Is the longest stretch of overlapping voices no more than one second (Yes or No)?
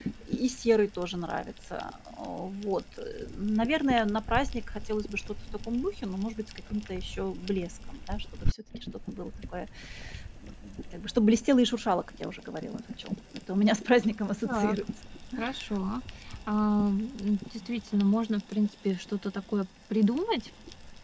Yes